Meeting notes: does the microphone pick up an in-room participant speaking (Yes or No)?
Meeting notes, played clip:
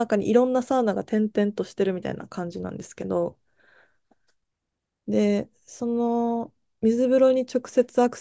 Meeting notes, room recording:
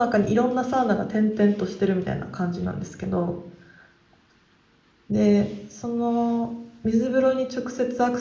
No